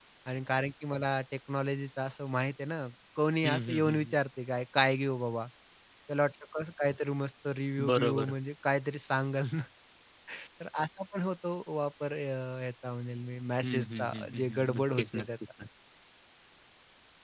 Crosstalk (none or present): present